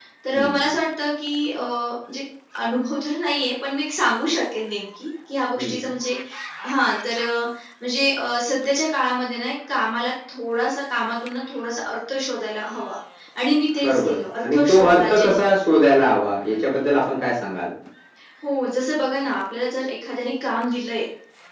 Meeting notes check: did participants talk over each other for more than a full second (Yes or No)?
Yes